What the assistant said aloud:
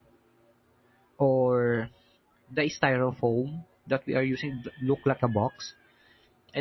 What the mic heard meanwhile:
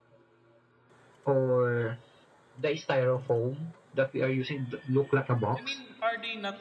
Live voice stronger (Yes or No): No